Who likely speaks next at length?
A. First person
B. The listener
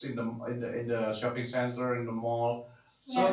A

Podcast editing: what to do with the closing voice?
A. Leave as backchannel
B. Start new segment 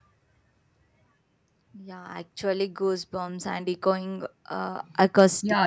B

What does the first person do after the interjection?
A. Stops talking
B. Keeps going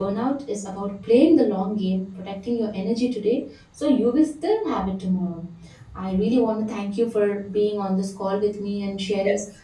B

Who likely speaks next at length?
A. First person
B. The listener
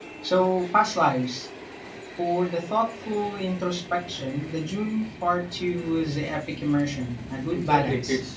B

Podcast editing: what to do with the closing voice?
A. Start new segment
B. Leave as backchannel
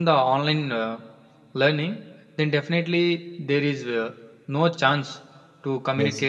B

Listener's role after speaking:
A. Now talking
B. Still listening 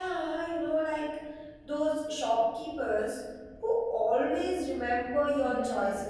A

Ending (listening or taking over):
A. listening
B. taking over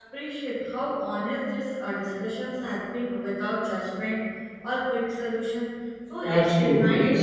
B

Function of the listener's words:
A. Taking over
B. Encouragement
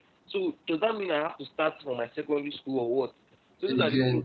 B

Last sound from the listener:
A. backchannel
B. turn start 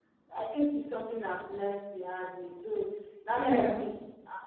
A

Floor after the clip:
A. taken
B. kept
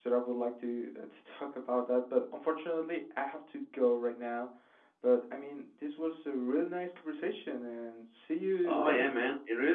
A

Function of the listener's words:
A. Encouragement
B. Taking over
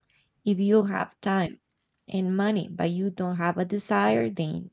A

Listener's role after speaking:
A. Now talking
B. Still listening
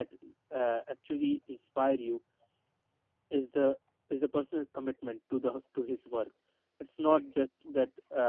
B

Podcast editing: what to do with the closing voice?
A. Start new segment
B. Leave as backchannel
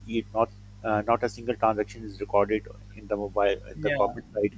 A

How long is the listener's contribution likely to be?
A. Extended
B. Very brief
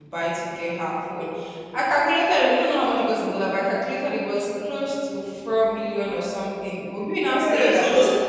A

